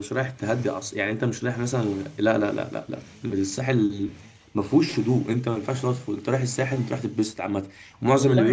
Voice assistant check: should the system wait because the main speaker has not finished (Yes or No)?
No